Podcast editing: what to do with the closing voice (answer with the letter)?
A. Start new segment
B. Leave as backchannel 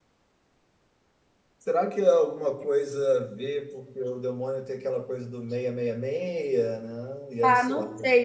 A